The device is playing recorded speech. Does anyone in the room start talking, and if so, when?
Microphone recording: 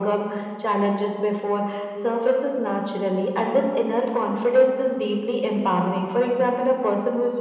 none

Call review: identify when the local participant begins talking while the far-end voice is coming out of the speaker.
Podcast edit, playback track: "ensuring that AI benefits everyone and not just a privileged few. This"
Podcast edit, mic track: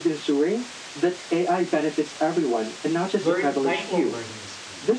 3.2 s

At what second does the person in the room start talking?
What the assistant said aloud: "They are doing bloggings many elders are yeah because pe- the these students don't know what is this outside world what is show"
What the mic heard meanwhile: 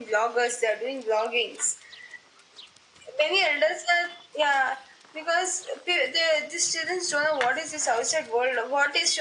none

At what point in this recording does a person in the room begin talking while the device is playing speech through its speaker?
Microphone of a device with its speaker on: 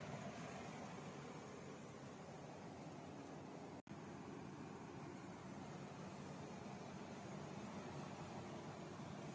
none

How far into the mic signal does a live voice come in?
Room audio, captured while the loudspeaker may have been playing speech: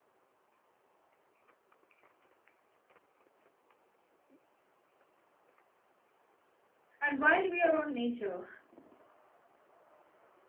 7.0 s

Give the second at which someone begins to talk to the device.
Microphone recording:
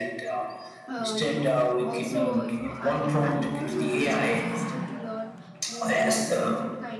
0.9 s

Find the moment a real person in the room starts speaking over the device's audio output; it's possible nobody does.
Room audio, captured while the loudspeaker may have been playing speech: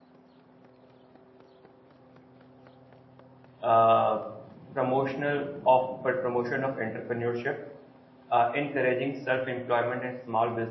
3.6 s

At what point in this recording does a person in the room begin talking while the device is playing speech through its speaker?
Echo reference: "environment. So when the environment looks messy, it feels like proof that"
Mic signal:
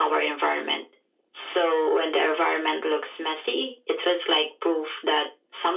none

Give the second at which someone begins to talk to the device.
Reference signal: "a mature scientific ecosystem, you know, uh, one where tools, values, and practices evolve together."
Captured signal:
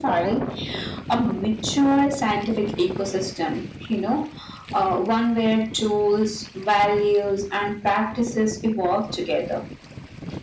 none

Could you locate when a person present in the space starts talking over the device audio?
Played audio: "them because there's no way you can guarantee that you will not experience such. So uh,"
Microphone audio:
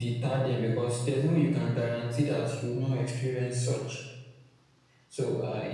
none

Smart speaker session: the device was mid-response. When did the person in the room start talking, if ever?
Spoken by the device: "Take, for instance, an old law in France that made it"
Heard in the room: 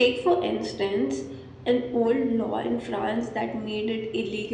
none

